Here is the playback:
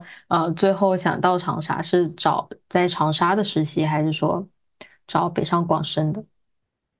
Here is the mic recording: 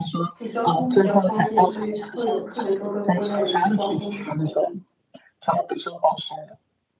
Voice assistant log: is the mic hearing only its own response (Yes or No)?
No